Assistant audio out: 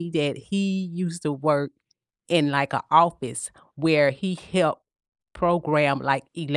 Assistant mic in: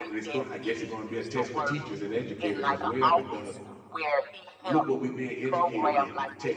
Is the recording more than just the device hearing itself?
Yes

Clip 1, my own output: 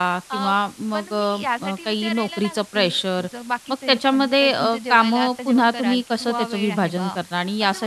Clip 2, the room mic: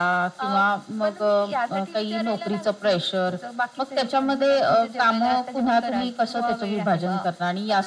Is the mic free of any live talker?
Yes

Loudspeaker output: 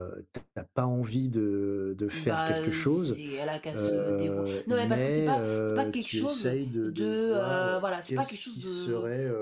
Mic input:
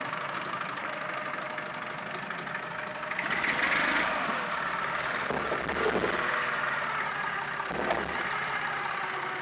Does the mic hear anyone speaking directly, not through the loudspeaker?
No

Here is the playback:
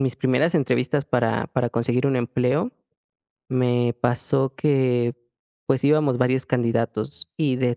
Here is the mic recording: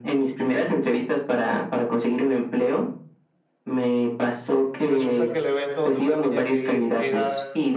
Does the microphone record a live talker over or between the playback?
Yes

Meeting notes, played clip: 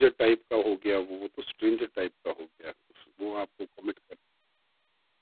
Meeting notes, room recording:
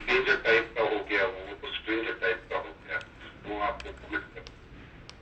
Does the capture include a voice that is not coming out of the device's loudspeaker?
No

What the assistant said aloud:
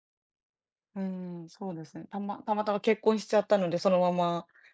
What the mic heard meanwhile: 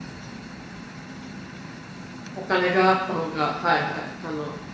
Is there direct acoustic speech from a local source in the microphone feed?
Yes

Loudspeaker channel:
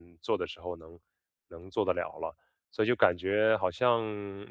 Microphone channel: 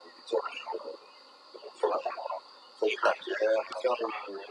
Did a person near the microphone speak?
No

